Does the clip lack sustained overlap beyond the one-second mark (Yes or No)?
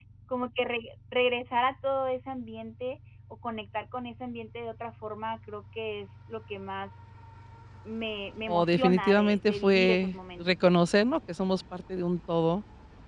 No